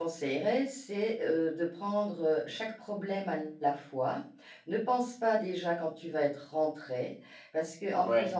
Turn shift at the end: No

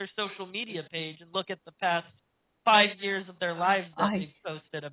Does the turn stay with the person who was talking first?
Yes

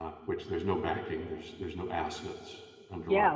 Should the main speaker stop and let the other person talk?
Yes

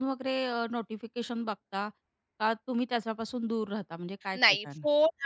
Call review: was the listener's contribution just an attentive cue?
No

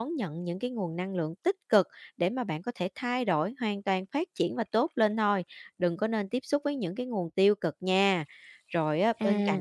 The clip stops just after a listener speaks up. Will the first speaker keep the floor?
Yes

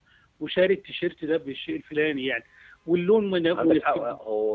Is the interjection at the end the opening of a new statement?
Yes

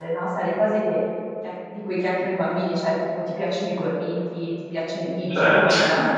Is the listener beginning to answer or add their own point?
No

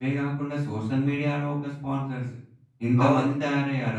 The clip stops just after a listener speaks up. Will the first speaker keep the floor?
Yes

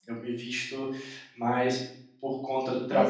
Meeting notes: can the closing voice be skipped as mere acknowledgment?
Yes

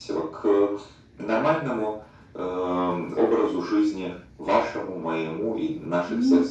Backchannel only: Yes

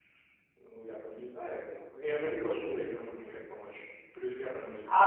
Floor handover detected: Yes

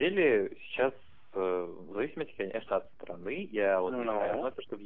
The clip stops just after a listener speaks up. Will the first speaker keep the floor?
Yes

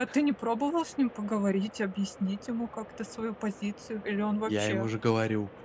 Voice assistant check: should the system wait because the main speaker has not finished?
No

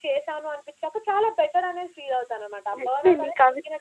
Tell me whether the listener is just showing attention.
No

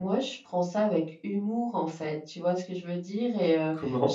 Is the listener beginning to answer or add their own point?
No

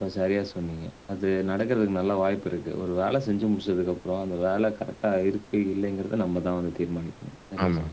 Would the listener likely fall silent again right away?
No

